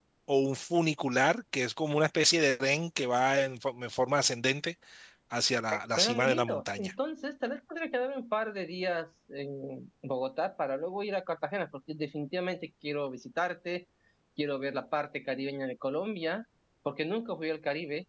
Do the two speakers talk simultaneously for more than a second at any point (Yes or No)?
Yes